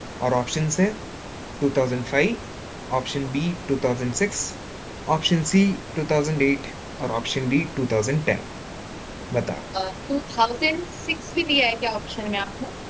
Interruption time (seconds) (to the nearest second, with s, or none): none